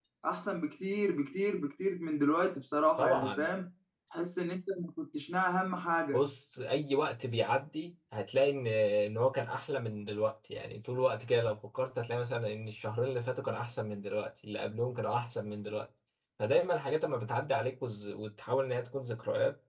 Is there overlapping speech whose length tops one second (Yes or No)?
No